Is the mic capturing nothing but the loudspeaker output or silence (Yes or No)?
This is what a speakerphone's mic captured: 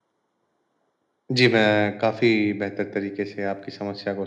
Yes